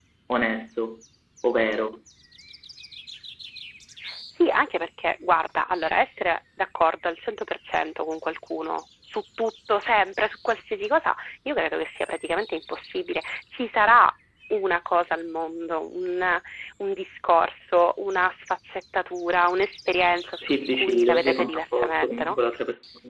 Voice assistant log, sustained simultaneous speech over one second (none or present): present